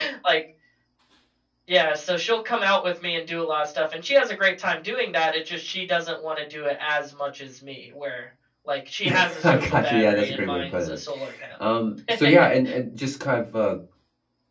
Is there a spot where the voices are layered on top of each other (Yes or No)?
Yes